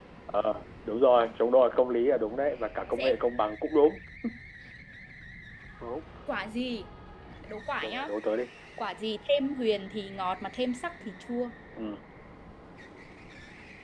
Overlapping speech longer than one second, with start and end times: none

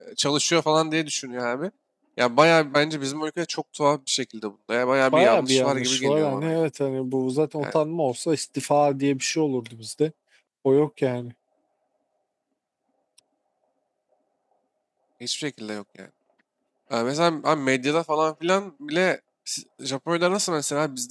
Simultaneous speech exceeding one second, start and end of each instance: 5.1-6.5

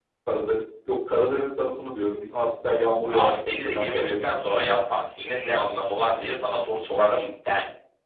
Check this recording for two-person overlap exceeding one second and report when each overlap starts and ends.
3.1-4.5

